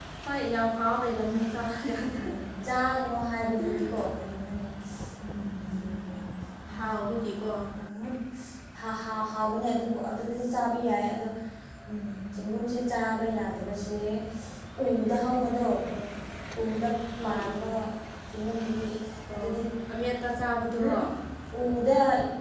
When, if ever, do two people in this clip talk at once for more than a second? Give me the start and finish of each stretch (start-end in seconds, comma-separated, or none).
none